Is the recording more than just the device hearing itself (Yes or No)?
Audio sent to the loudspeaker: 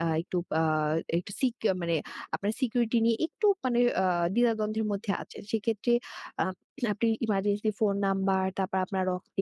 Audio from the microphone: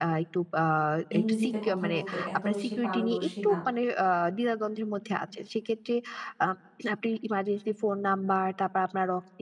Yes